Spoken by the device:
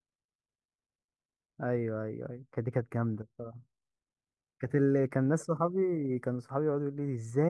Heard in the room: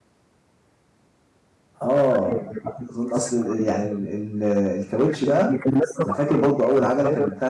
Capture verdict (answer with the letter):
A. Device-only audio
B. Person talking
B